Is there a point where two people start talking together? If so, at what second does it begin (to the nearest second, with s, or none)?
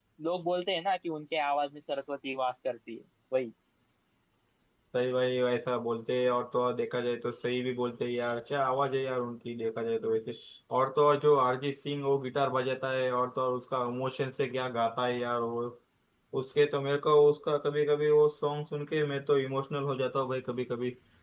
none